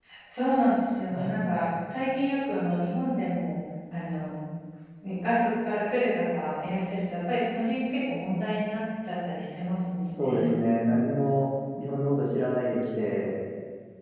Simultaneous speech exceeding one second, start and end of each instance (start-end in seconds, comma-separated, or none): none